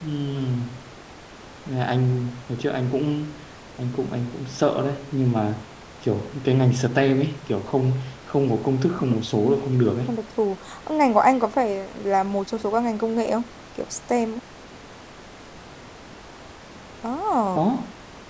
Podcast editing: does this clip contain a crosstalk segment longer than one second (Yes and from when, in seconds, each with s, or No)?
No